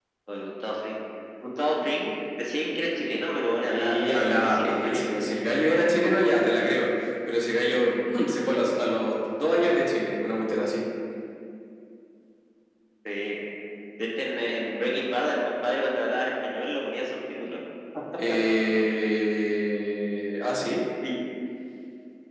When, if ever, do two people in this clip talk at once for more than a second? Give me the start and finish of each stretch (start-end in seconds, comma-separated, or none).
3.7-5.1